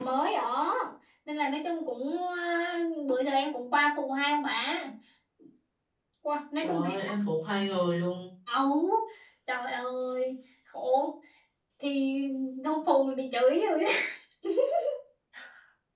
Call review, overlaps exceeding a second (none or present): none